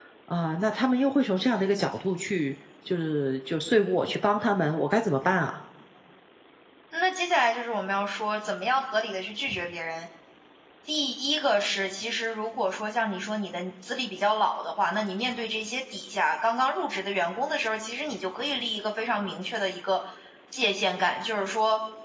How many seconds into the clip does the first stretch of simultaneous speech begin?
none

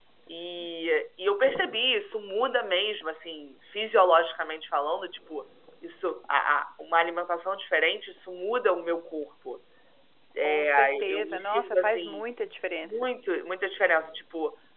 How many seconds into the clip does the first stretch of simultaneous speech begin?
10.4 s

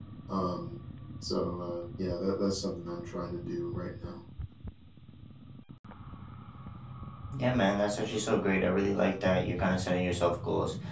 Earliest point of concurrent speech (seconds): none

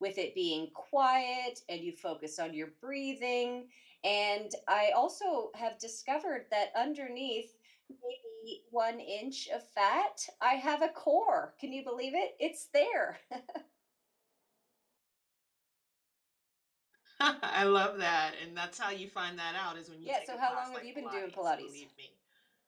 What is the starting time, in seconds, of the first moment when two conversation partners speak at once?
20.0 s

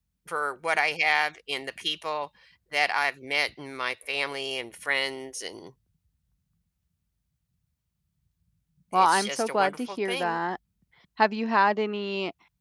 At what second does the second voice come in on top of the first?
8.9 s

